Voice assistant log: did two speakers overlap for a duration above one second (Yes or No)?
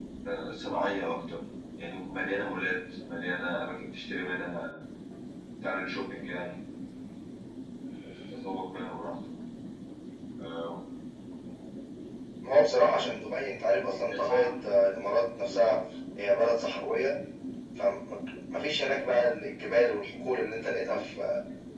No